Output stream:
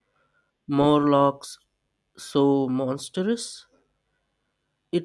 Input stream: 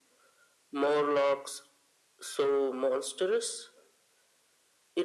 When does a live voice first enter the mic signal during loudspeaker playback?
none

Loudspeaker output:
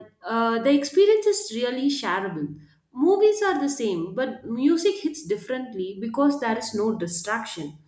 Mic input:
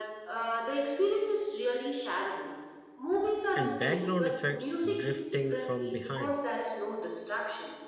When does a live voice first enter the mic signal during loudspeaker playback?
3.5 s

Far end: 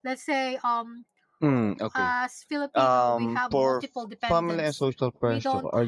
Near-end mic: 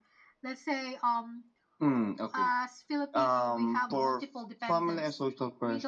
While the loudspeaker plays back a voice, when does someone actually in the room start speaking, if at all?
none

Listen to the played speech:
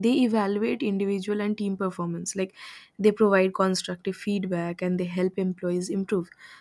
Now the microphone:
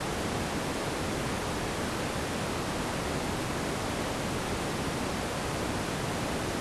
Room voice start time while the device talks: none

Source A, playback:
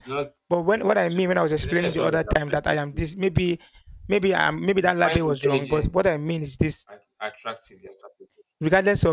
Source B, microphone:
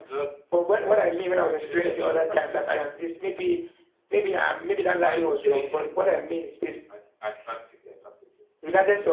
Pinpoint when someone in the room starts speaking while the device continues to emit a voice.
none

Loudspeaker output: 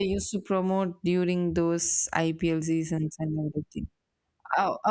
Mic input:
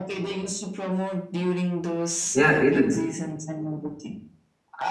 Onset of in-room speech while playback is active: 2.3 s

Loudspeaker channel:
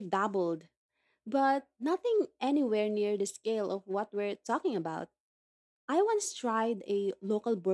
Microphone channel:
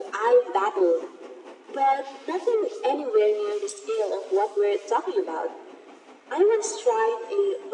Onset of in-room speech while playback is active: none

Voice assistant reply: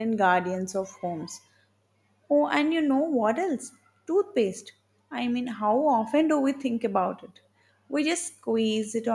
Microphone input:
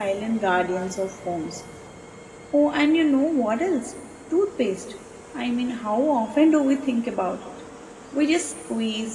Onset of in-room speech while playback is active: none

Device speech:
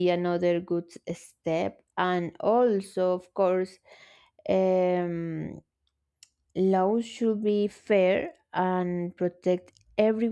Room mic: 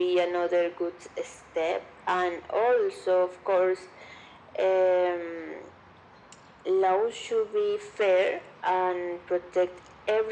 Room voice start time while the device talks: none

